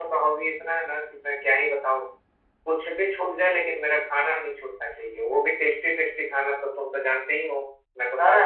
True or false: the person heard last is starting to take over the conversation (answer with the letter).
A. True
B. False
A